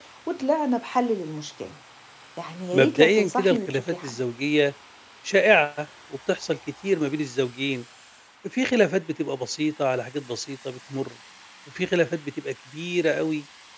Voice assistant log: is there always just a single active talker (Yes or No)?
No